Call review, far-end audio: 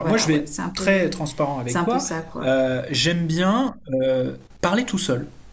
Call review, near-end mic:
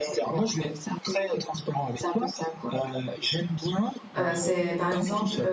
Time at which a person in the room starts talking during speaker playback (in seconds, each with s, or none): 4.2 s